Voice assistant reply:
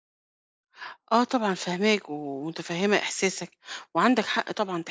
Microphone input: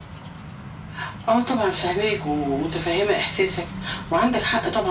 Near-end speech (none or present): none